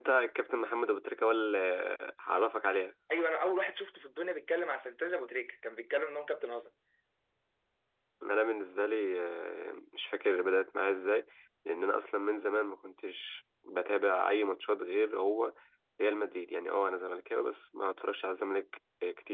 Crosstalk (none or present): none